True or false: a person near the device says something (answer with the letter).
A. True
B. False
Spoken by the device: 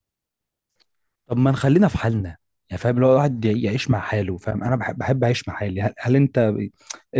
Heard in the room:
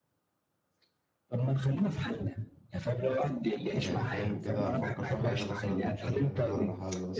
A